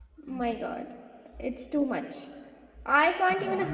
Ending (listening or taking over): listening